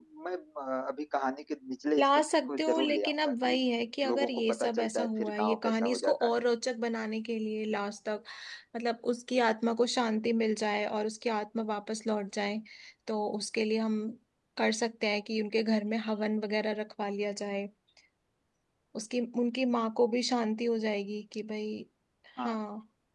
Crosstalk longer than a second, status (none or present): present